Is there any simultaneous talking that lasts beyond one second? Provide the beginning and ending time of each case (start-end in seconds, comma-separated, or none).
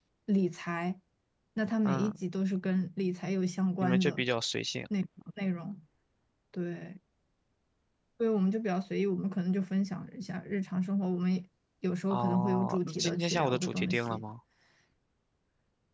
12.1-14.2